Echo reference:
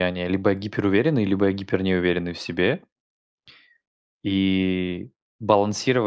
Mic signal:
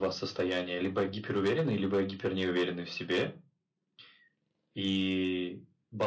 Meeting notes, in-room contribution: none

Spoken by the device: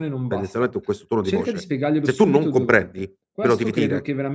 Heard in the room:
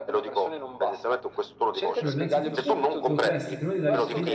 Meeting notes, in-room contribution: present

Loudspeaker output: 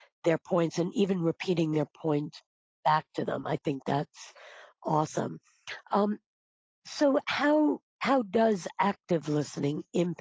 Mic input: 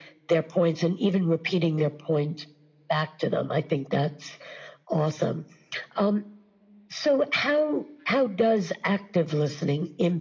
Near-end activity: none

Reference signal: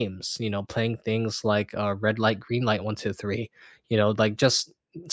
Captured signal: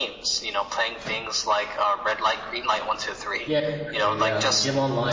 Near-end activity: present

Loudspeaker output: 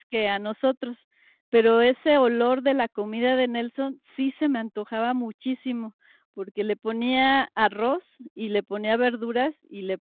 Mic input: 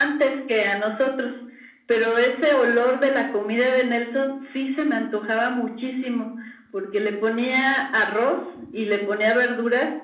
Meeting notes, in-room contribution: none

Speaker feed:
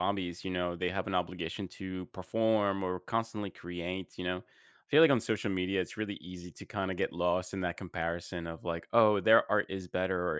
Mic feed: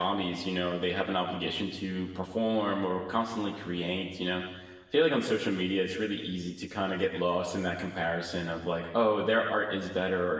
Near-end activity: none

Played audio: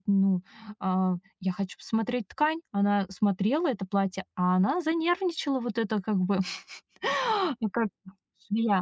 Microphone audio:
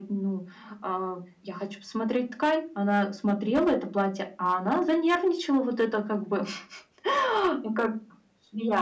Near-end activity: none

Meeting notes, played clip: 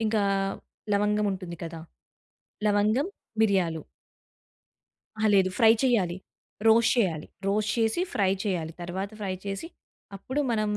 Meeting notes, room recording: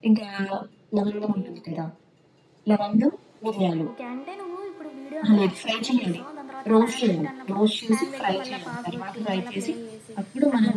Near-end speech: present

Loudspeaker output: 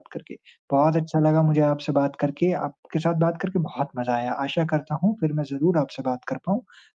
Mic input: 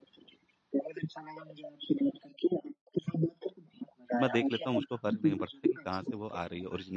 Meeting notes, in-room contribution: present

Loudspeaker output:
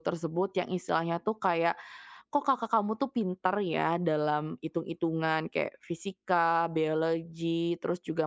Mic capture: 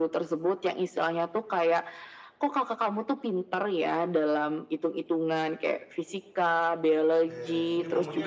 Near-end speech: present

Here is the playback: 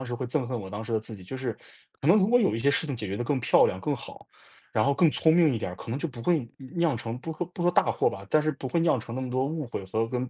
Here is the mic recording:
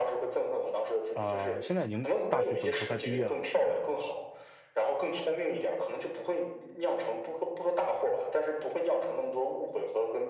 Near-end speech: present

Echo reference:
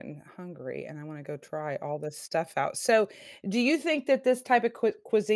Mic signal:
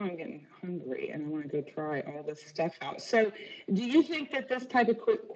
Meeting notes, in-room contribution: none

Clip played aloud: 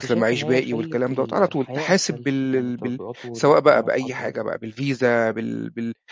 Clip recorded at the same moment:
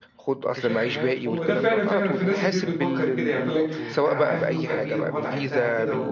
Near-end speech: present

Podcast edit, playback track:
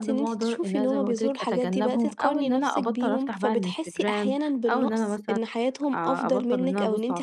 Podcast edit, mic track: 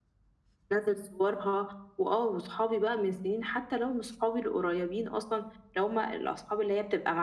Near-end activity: present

